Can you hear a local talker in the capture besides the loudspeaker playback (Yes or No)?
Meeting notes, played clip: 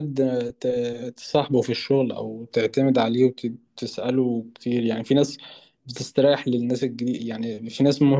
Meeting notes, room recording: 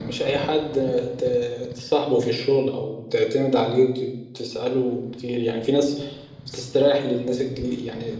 No